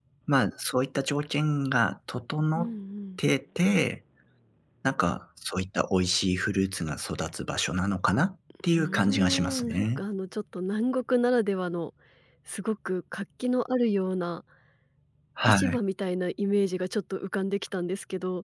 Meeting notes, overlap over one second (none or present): present